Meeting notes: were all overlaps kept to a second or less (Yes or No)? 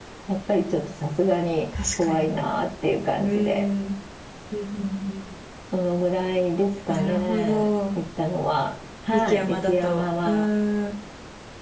No